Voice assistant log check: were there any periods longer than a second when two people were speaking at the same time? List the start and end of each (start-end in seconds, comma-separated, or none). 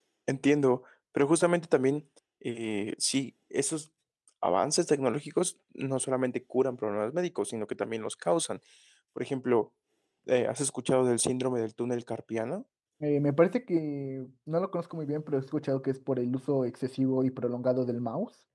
none